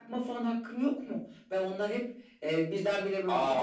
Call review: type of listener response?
listening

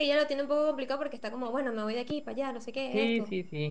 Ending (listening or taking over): taking over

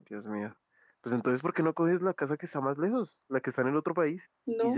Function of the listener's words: taking over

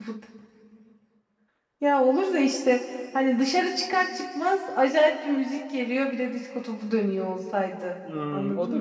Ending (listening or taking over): taking over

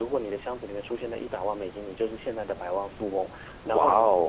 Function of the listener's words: listening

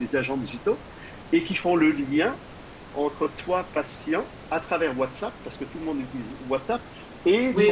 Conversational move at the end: taking over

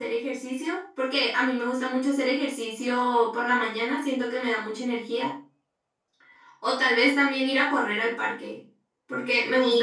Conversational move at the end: listening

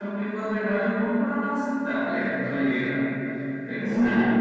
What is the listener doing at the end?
listening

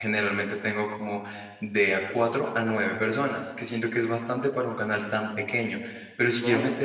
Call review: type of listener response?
listening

